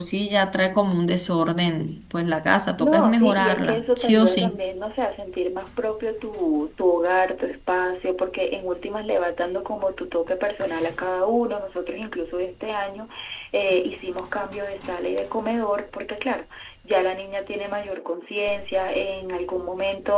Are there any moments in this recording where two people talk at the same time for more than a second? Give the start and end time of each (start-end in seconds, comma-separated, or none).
2.8-4.6